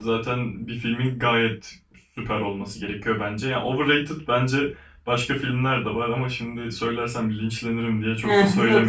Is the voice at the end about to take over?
Yes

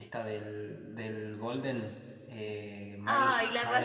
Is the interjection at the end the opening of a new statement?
Yes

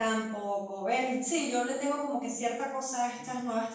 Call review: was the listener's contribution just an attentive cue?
No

